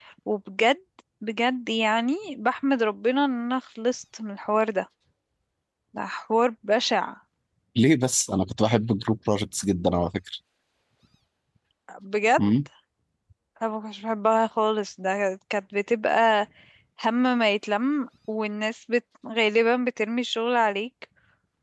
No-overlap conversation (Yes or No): Yes